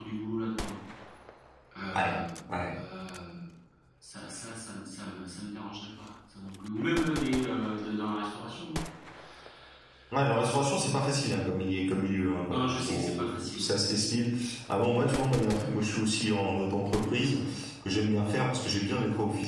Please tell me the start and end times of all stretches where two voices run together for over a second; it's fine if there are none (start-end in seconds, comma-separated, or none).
12.5-13.7